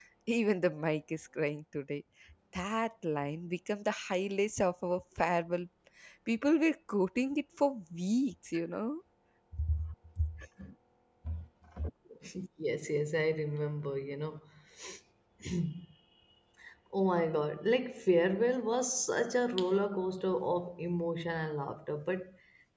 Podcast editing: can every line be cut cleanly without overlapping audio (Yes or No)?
Yes